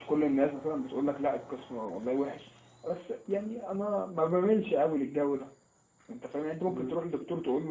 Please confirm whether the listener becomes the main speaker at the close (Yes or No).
No